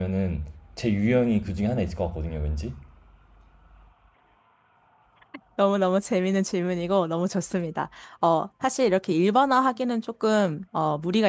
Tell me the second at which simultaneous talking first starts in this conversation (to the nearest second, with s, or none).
none